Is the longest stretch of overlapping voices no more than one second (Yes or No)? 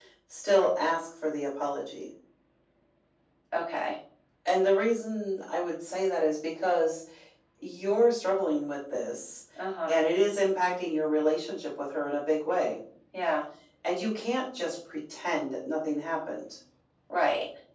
Yes